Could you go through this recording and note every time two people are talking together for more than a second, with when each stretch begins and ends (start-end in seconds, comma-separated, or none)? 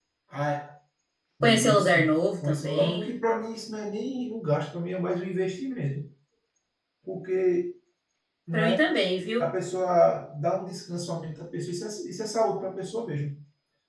1.4-3.1